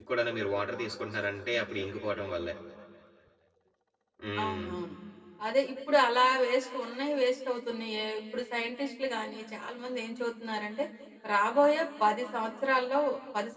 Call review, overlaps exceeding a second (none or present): none